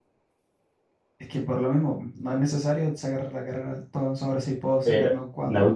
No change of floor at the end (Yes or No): No